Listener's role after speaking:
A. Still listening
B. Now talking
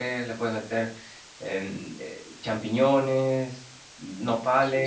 B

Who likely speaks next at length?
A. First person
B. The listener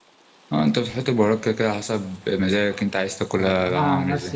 B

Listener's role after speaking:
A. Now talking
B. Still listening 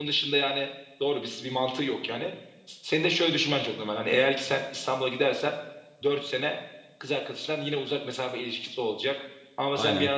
A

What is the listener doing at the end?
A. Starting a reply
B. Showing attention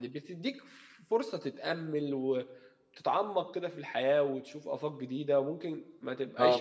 B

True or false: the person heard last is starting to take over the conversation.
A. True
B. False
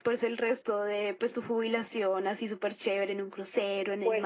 A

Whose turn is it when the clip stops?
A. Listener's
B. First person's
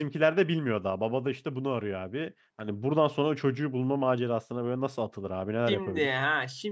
A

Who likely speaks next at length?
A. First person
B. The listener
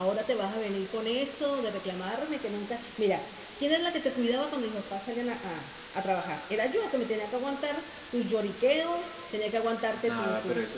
B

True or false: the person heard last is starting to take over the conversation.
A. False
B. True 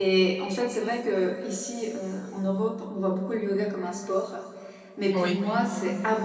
A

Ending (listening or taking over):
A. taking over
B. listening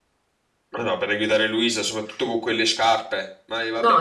A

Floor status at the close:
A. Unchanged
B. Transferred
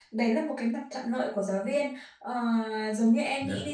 A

